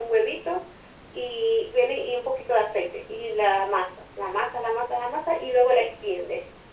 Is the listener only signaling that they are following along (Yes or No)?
Yes